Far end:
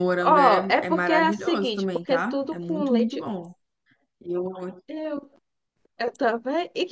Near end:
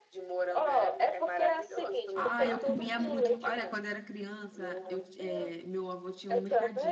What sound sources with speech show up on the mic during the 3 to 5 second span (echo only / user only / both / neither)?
both